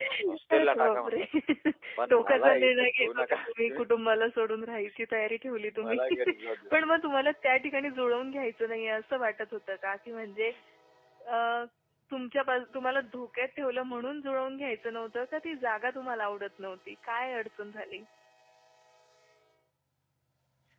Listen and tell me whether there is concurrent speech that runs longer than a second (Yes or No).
Yes